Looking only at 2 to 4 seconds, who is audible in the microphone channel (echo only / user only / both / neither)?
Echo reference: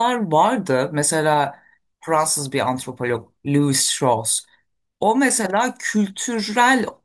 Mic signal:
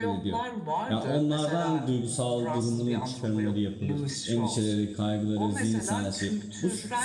both